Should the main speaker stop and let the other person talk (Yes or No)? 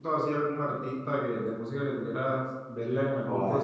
Yes